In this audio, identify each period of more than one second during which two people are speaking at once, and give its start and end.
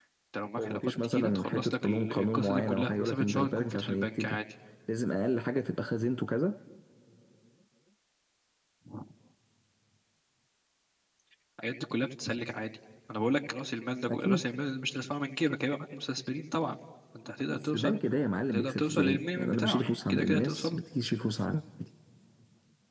0.6-4.4, 18.5-20.8

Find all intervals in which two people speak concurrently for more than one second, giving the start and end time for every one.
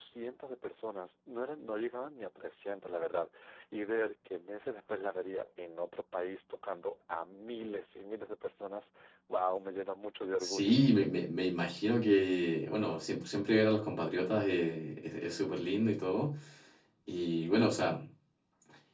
none

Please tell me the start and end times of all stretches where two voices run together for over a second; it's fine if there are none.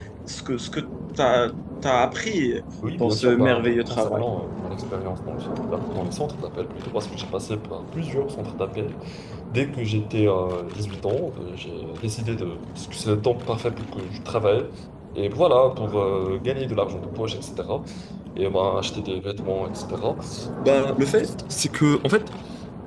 3.0-4.3

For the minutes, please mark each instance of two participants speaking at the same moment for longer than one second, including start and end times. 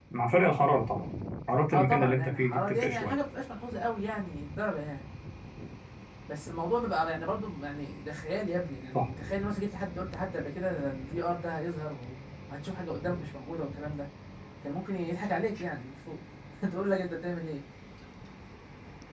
1.7-3.2

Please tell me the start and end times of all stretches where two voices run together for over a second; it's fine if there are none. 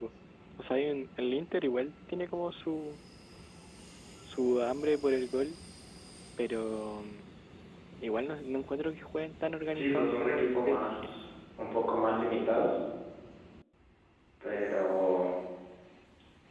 9.7-11.1

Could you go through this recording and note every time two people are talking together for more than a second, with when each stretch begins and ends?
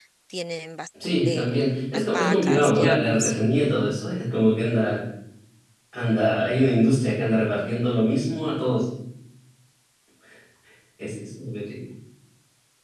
1.2-3.3

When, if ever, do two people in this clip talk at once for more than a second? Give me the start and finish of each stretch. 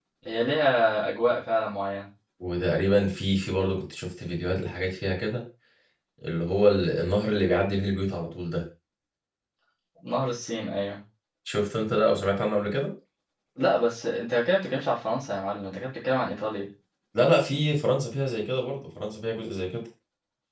none

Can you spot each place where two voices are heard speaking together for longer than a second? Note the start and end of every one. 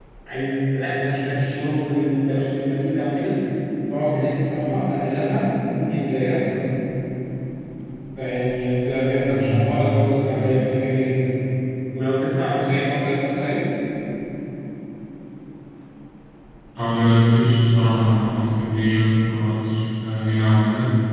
9.2-10.5

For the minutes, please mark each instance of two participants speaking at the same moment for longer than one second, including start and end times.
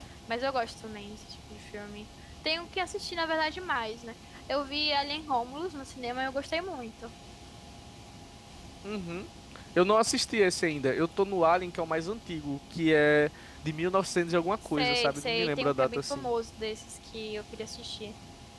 14.8-16.3

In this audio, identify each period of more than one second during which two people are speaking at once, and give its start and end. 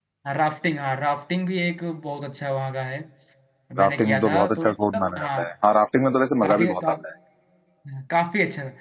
3.8-5.4

